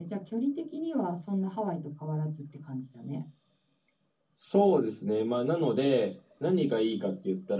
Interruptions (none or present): none